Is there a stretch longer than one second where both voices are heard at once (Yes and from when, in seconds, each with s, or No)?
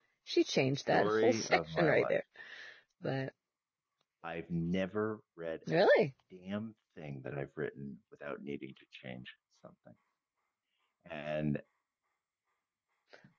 Yes, from 0.9 s